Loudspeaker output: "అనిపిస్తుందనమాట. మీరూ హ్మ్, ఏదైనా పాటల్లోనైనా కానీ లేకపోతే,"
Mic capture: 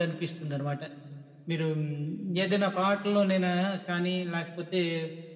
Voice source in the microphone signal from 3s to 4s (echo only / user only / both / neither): echo only